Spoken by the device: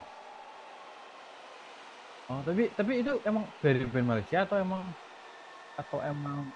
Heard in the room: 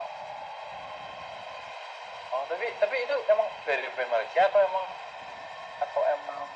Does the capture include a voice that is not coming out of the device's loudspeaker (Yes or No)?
No